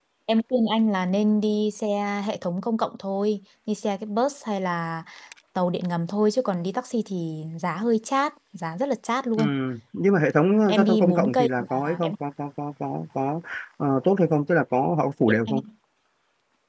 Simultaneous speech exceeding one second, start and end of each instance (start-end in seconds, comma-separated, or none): 10.7-12.1